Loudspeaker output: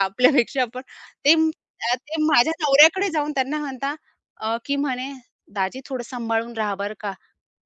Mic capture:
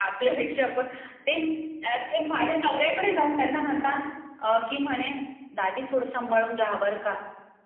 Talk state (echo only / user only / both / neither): echo only